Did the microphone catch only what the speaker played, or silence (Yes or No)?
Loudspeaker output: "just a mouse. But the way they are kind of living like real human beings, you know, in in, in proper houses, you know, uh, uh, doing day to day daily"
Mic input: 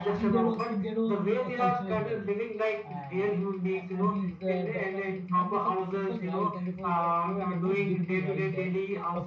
No